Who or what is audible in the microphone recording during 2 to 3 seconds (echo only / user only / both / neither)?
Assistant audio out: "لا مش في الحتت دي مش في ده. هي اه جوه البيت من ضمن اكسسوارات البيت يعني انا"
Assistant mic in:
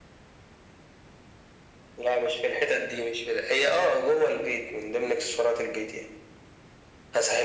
echo only